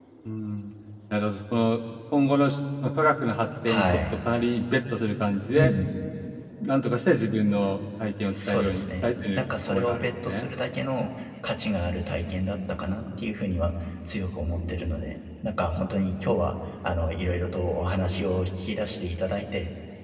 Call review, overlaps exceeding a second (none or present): present